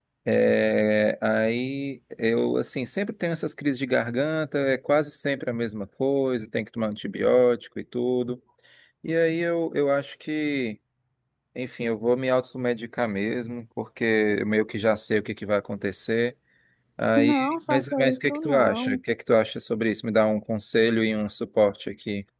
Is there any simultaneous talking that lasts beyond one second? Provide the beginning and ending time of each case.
17.2-19.0

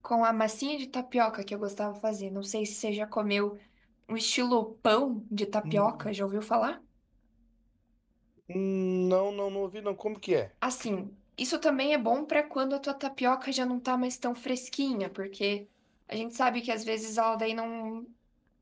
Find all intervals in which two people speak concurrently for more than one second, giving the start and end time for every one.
none

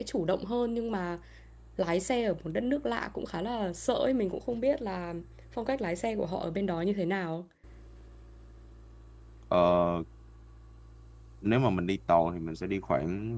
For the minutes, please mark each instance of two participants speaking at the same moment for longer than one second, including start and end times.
none

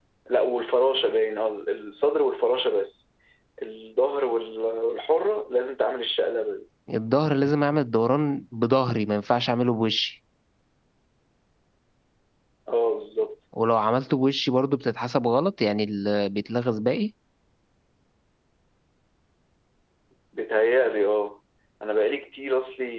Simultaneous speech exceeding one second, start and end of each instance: none

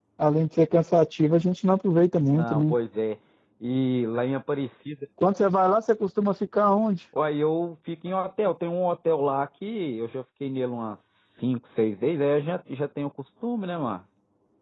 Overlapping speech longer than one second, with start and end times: none

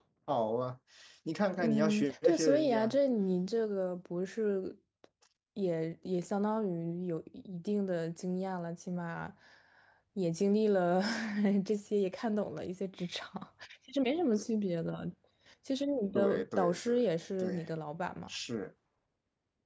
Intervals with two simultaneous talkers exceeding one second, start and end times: 1.6-3.0, 16.1-17.6

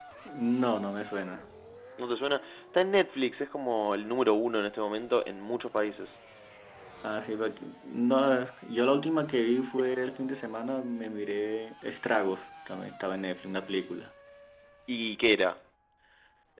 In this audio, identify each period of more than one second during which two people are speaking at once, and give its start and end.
none

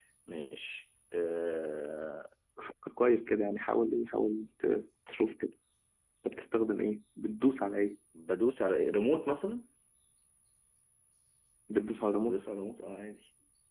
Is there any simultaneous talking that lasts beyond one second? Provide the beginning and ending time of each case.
none

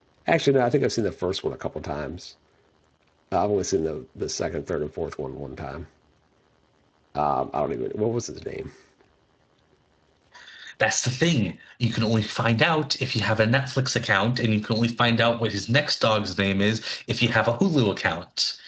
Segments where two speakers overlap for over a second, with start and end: none

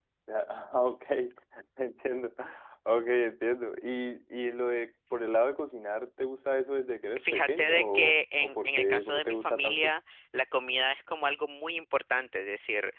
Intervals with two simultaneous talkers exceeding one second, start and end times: 7.2-9.9

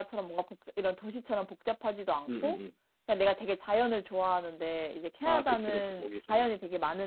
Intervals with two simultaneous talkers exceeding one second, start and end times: 5.2-6.5

